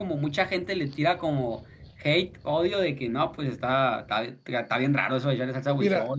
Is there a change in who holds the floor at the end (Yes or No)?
Yes